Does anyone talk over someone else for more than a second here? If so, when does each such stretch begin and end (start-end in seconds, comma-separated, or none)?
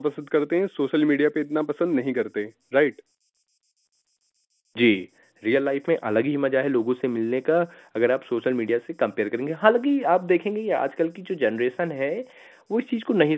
none